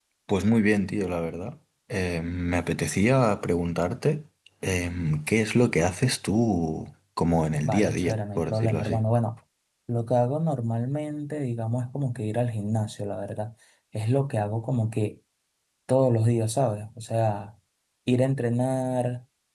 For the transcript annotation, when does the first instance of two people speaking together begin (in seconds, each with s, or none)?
7.5 s